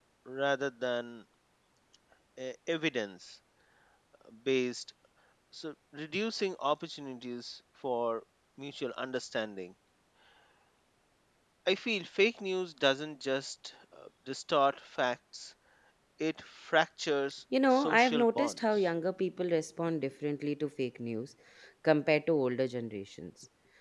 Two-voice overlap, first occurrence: 17.5 s

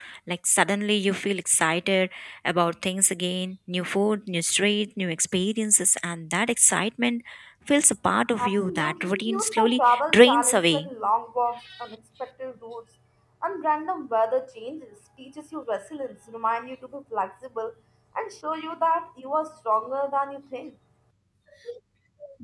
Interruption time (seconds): 8.4 s

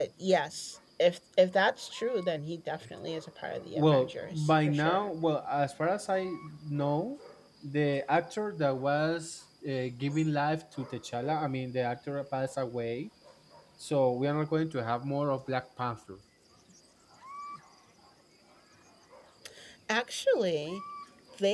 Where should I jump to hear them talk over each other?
3.8 s

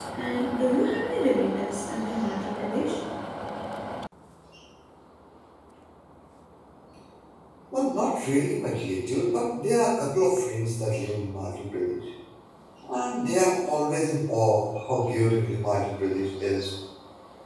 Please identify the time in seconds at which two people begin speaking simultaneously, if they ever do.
none

